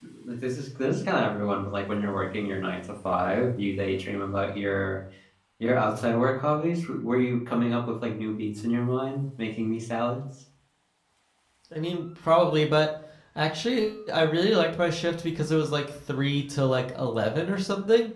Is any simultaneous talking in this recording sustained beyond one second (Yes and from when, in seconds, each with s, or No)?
No